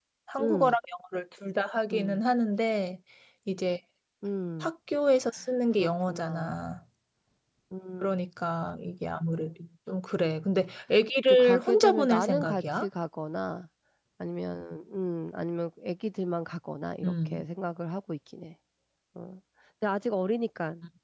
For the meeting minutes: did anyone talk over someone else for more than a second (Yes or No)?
Yes